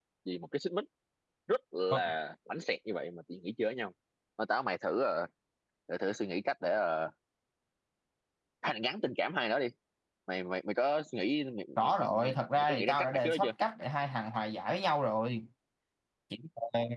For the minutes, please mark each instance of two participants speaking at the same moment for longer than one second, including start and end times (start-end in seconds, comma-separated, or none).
11.8-13.5